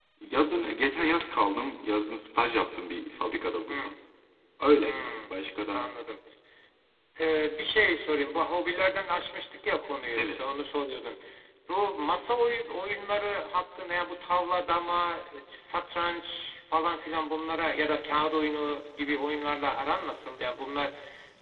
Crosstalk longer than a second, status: none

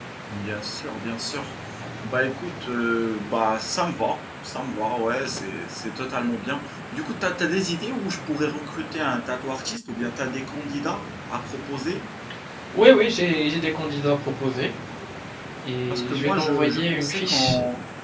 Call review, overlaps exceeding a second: present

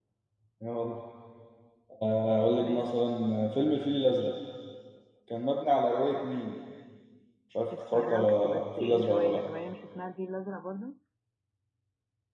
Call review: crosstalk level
present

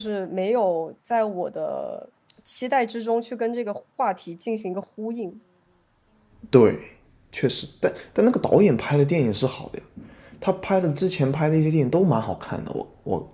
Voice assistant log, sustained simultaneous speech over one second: none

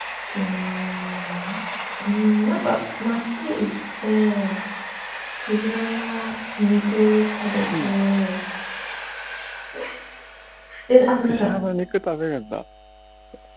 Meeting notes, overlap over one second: none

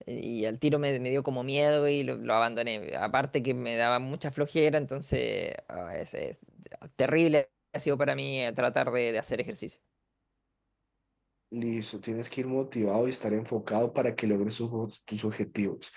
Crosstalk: none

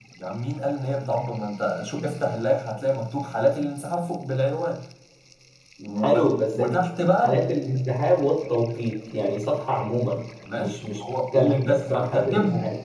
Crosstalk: present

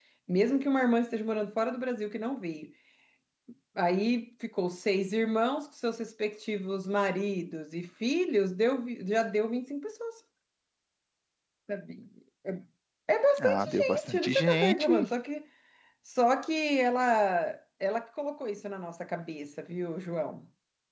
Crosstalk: present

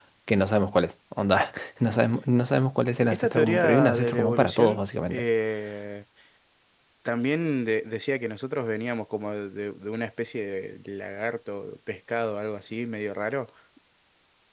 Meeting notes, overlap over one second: present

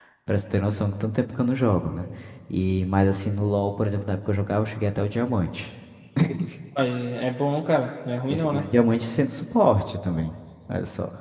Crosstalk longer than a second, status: none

